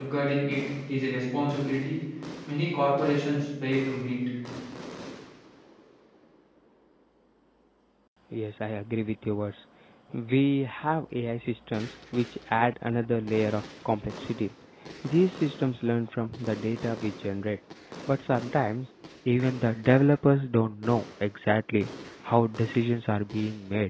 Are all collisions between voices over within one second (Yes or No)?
Yes